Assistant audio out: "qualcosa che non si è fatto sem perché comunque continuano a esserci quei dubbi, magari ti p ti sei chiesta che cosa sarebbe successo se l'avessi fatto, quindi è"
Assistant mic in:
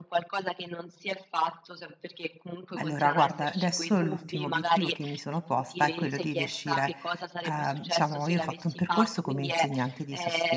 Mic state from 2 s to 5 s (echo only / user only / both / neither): both